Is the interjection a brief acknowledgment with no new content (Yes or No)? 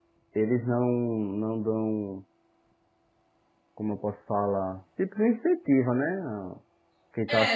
No